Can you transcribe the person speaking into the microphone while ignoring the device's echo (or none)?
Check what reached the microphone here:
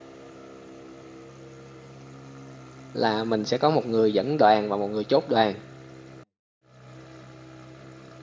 là mình sẽ có một người dẫn đoàn và một người chốt đoàn